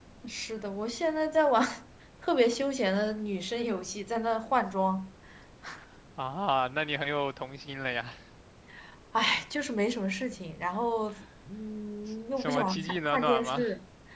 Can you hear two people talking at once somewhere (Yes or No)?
Yes